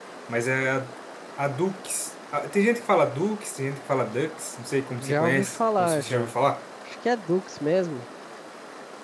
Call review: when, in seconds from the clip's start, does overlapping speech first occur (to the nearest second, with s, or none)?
5 s